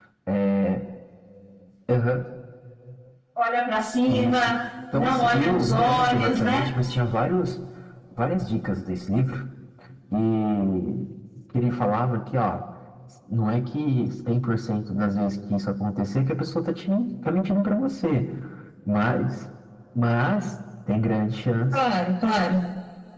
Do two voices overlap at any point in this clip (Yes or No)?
Yes